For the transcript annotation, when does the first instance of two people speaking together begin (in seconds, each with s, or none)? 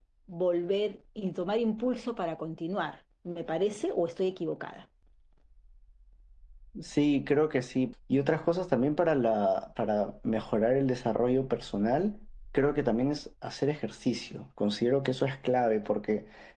none